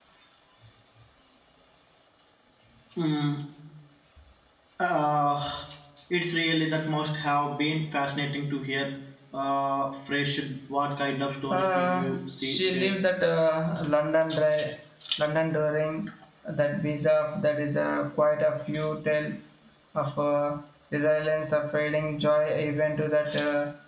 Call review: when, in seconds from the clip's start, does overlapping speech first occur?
12 s

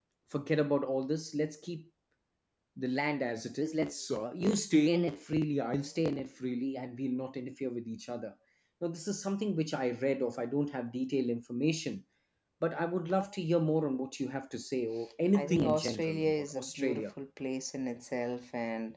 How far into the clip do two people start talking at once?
15 s

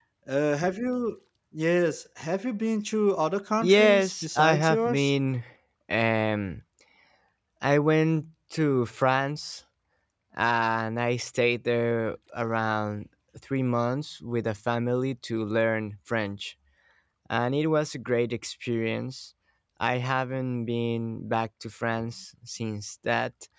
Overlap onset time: 4 s

